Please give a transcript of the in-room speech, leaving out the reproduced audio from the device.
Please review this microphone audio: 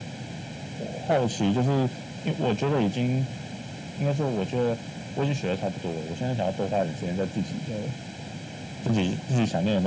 none

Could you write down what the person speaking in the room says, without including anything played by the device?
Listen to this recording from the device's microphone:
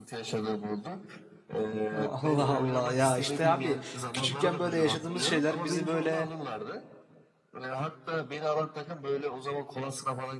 Allah Allah ya işte abi küçükken böyle yaşadığımız şeyler bizi böyle

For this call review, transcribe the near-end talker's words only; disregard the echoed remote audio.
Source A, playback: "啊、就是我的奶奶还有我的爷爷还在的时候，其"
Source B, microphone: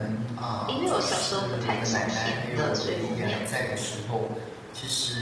因为我小时候不太吃甜的，所以我没有

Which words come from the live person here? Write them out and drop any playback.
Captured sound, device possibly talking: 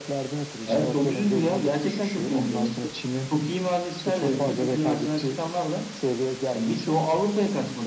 none

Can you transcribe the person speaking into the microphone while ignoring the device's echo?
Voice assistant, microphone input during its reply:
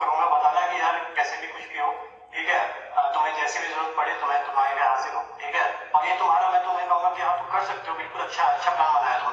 none

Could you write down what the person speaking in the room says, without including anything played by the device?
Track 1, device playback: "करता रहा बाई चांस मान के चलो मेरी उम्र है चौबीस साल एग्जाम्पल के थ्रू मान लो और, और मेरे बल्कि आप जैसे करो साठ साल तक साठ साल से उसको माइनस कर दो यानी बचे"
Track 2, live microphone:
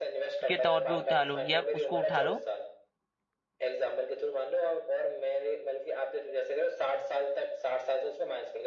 के तौर पे उठा लो या उसको उठा लो

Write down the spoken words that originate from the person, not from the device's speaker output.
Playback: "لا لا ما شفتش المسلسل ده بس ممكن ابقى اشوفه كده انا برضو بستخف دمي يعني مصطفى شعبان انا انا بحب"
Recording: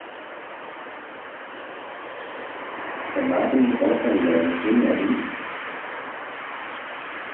كان معاه في المسلسل نسرين أمين

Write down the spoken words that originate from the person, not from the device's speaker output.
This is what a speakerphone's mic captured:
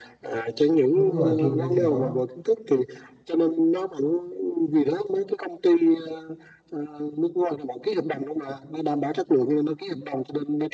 đúng rồi trường đây thì có

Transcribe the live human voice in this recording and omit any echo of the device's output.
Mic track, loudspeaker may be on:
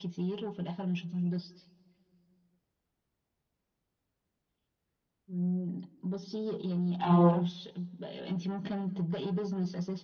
اه

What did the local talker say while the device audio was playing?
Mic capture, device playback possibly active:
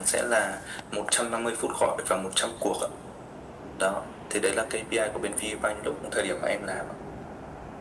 none

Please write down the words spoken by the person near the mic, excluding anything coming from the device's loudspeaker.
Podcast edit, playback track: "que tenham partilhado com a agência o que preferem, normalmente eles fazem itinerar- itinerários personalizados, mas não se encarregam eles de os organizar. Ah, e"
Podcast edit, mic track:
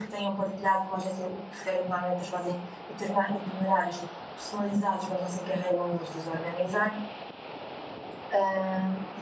none

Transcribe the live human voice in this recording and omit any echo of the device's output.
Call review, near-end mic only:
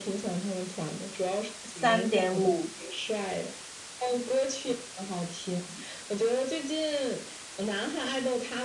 三点五

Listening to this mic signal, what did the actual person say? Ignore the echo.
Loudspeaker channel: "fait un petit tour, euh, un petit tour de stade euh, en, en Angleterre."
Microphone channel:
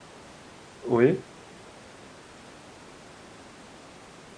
Oui,

